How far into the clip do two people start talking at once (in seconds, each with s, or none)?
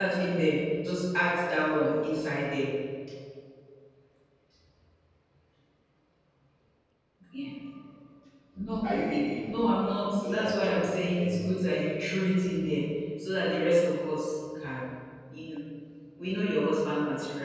10.2 s